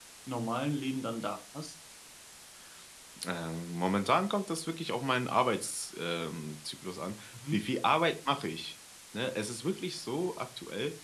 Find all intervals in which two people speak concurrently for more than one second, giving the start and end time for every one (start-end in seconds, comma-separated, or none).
none